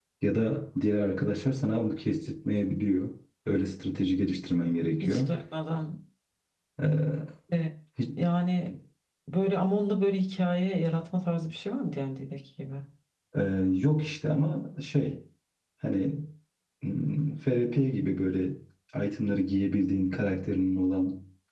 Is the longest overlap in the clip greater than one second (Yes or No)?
No